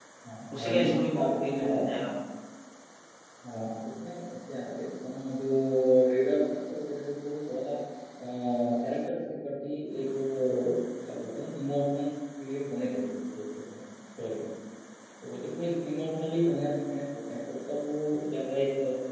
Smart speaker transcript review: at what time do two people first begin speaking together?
1 s

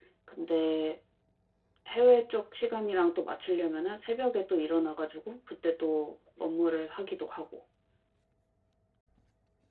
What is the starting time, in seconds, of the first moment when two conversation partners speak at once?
none

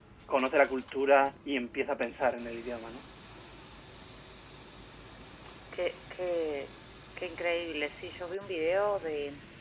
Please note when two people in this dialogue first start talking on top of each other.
none

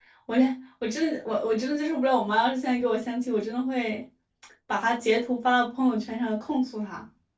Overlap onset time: none

